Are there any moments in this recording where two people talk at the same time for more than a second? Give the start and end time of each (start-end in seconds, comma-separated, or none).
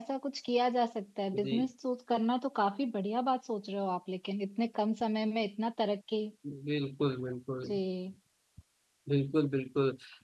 none